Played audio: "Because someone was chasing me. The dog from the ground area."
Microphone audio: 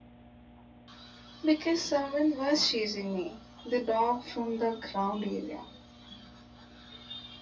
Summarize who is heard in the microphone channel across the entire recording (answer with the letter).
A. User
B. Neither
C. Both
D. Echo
D